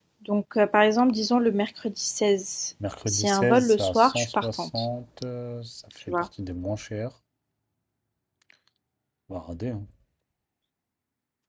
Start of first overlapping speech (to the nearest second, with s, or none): 3 s